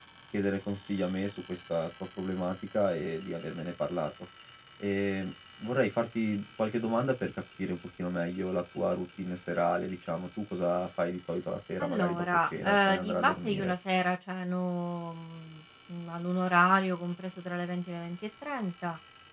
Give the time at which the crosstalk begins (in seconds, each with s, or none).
11.8 s